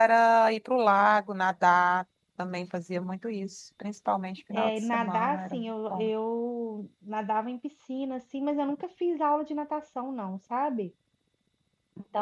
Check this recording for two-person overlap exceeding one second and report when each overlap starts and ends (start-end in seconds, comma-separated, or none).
4.5-6.1